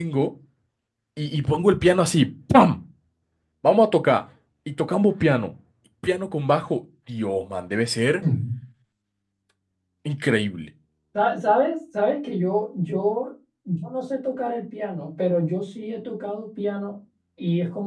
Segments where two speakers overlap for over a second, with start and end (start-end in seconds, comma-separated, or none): none